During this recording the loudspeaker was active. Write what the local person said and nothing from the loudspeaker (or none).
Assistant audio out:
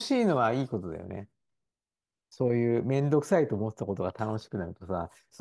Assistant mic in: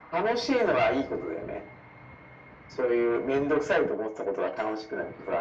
none